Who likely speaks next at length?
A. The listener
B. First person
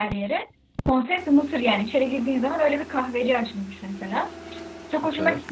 B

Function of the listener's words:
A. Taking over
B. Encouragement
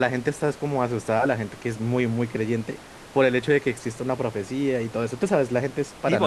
A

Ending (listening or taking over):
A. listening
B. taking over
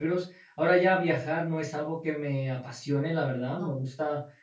A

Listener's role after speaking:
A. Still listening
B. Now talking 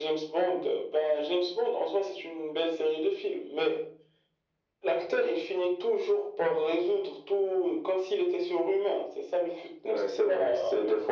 B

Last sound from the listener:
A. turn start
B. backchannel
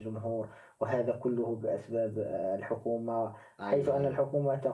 B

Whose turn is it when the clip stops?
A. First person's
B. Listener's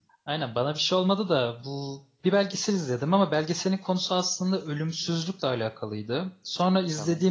A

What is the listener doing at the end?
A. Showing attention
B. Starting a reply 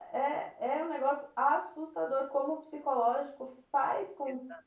A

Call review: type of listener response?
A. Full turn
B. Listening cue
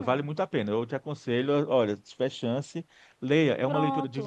B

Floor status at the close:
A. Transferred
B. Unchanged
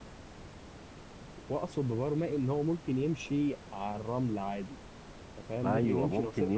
A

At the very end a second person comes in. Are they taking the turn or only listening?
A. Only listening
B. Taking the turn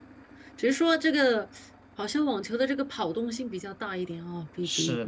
B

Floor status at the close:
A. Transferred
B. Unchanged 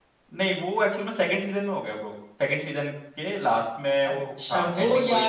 A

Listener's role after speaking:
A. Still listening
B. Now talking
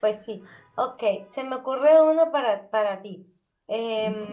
A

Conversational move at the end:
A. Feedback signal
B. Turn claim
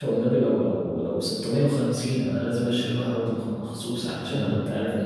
A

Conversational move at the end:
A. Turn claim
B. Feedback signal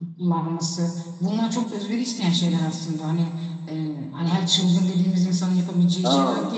B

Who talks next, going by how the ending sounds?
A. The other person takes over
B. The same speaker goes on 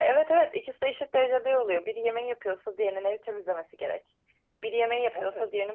B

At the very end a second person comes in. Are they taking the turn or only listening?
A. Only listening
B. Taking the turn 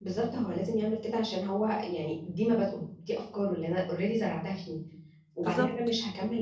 A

